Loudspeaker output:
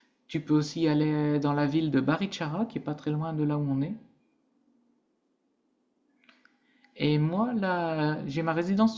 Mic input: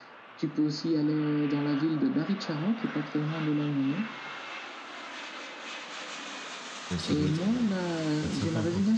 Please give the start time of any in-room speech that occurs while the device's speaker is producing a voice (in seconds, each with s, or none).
7.0 s